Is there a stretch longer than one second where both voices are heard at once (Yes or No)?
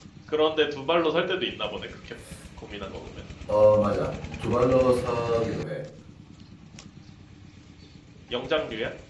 No